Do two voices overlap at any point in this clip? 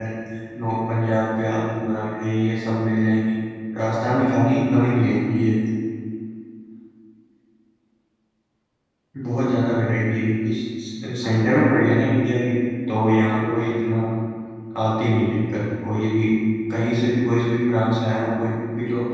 Yes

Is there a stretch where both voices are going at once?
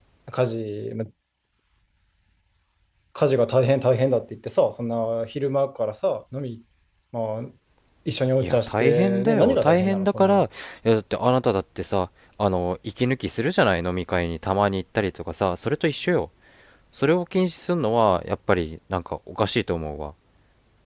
Yes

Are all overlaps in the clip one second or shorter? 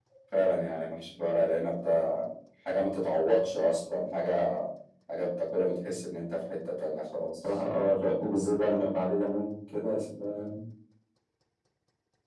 Yes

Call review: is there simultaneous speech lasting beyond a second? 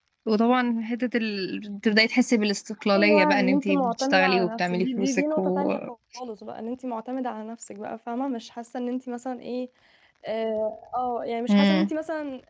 Yes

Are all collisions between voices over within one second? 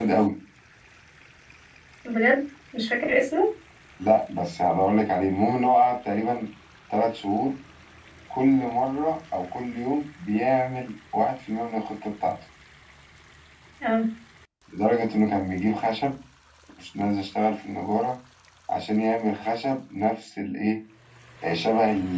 Yes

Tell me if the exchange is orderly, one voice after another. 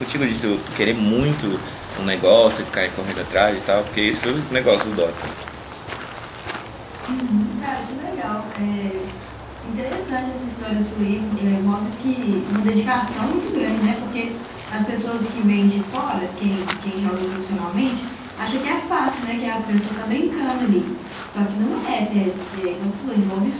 Yes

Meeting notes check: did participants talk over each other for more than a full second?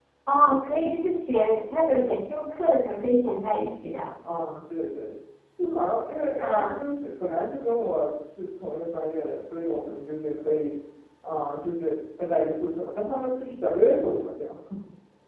No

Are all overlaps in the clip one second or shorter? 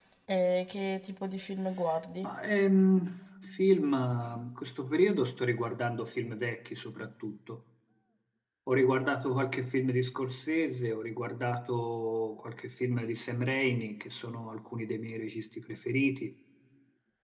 Yes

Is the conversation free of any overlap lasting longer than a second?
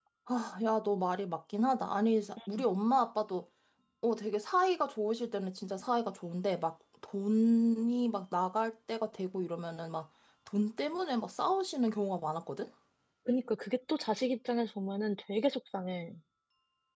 Yes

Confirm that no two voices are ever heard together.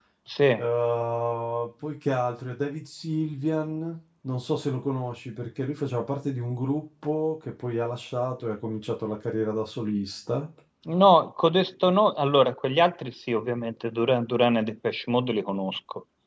Yes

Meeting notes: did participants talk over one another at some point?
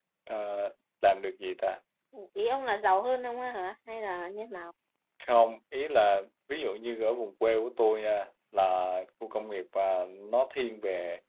No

